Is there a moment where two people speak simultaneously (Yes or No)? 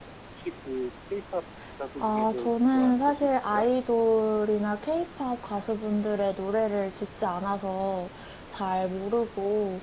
Yes